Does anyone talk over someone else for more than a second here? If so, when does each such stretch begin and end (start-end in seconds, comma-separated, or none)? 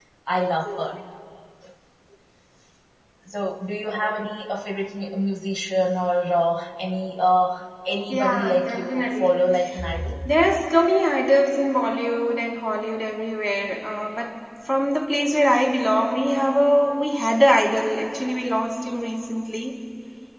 8.1-9.4